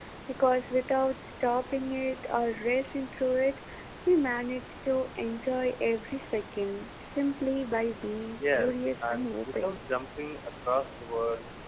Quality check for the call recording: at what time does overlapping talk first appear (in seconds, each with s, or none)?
8.4 s